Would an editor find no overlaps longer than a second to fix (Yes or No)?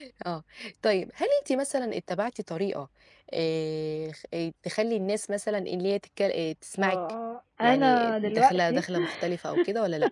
No